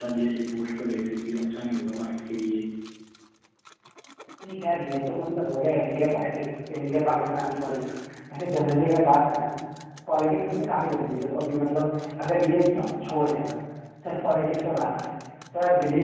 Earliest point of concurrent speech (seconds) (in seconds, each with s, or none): none